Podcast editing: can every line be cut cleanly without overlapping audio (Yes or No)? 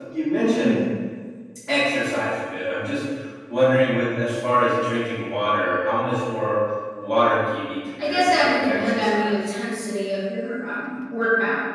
No